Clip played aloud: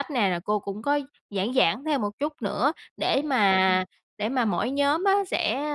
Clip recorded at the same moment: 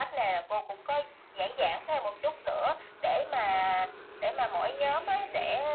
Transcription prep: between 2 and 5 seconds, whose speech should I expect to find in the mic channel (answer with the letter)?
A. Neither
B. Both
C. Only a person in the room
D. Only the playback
D